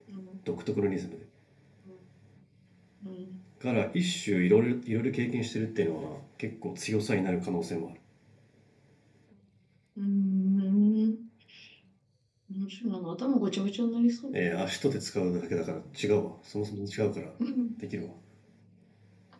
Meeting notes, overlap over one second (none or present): none